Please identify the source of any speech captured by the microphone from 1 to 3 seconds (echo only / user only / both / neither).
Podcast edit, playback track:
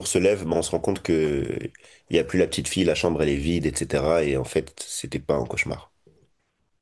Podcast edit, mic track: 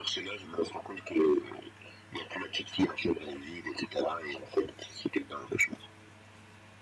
echo only